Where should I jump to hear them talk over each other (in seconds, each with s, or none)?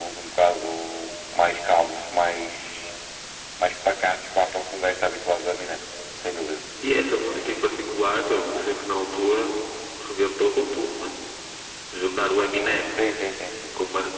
none